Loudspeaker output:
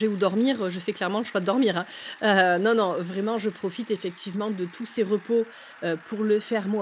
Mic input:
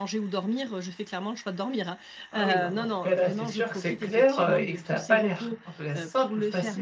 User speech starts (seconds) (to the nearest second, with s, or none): 2 s